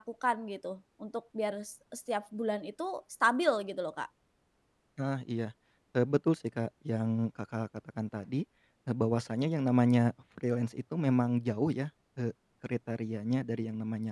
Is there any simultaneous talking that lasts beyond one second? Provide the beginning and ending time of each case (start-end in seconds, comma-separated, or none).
none